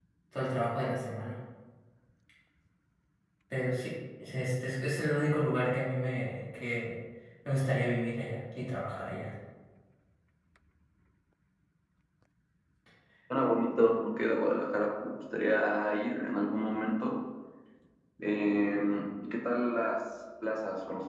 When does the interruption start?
none

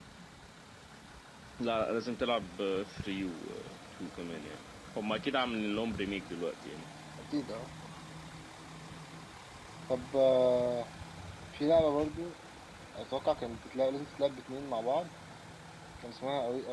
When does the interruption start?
none

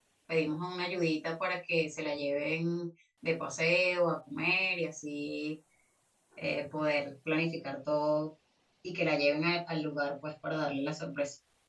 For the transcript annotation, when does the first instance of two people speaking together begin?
none

